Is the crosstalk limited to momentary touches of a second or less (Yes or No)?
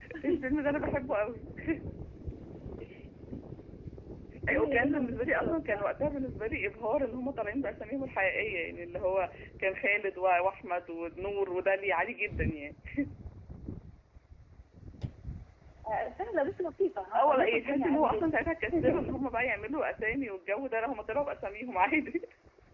No